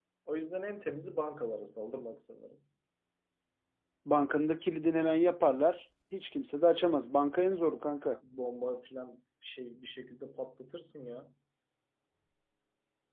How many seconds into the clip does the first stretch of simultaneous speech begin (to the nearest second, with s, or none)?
none